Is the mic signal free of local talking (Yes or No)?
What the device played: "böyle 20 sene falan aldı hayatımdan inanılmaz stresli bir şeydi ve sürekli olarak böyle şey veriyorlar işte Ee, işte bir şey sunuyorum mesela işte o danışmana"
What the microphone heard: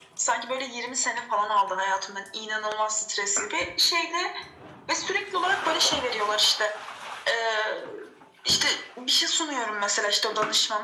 Yes